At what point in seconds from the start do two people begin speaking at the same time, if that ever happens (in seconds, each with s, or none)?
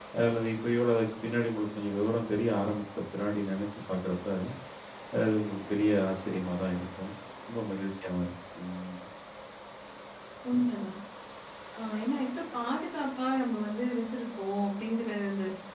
none